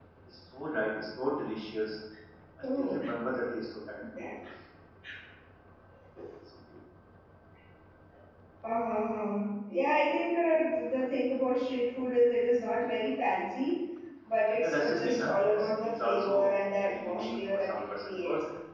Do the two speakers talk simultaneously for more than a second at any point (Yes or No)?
Yes